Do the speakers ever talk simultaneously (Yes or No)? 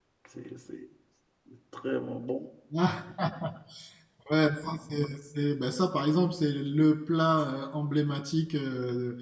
No